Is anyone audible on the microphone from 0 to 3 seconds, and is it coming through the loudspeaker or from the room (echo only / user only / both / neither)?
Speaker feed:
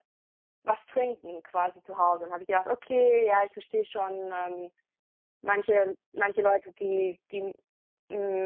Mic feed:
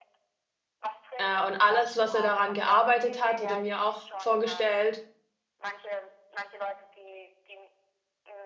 both